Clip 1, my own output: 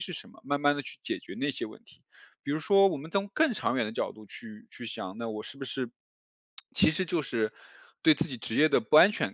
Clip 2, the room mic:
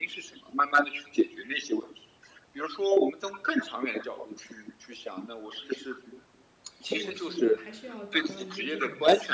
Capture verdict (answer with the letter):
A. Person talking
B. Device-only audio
A